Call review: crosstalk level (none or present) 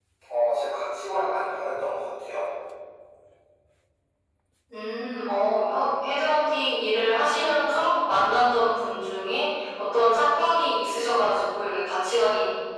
none